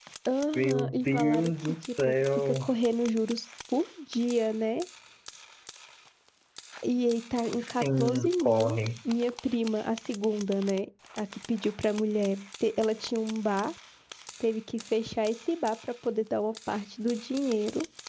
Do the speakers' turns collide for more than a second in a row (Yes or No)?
Yes